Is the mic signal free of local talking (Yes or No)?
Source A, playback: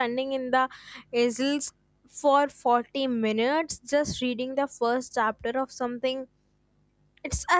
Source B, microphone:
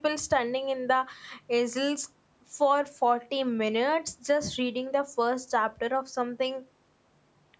Yes